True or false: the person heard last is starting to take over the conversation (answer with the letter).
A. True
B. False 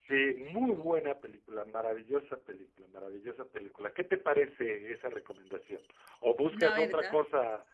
B